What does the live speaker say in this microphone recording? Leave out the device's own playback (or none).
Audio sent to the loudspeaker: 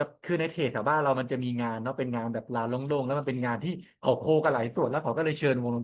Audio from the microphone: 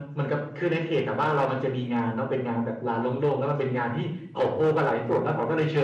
none